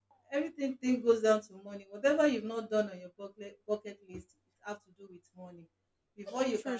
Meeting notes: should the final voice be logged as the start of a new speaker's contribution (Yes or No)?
No